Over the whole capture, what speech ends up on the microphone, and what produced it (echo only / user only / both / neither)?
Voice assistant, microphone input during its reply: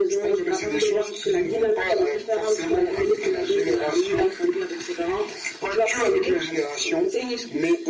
echo only